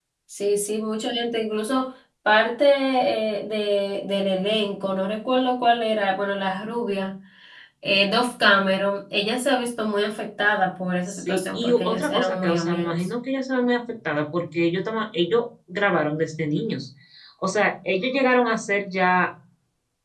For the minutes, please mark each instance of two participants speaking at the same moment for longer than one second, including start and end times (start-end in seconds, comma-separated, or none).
11.1-13.1